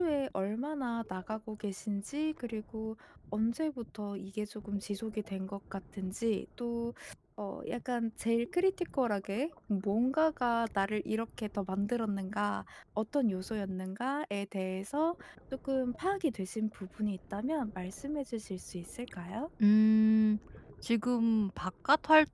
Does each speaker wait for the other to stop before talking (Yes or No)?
Yes